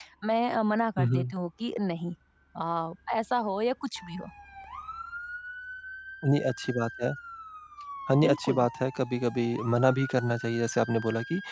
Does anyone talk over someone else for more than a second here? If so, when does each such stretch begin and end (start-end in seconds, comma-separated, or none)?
none